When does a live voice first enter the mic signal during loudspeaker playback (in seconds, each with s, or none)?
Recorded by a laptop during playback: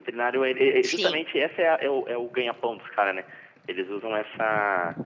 0.9 s